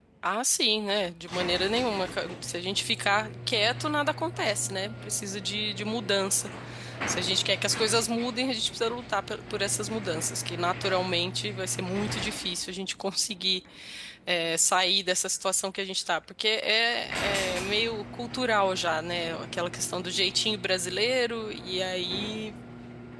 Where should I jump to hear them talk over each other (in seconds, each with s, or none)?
none